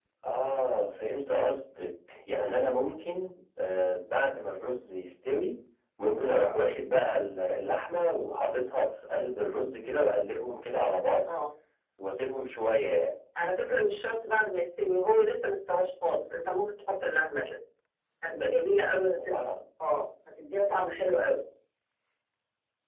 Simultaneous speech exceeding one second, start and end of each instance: none

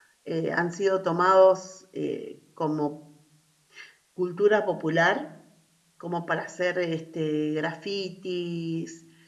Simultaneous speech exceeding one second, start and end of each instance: none

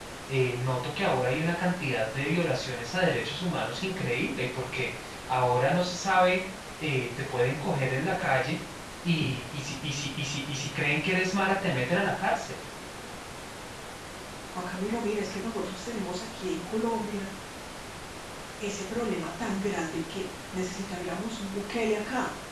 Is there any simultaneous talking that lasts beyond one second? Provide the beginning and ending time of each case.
none

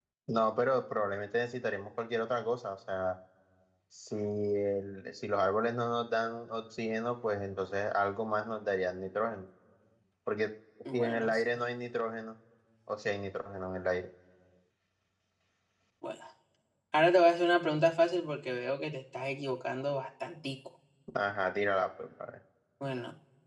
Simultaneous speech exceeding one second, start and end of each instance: none

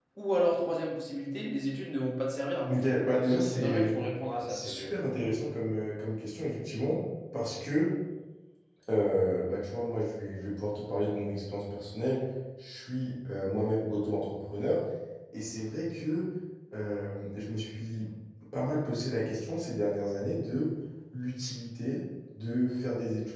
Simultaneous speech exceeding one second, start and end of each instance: 2.7-3.9

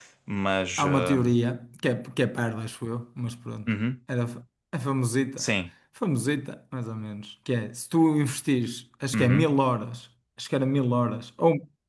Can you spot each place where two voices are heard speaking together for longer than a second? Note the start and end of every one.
none

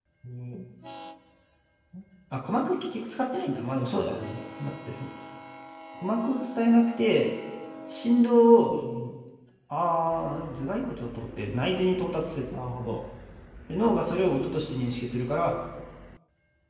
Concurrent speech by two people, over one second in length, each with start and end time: none

